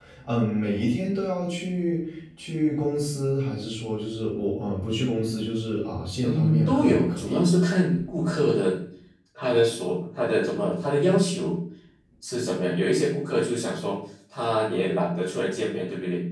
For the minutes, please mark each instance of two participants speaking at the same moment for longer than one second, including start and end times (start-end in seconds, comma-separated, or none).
6.2-7.4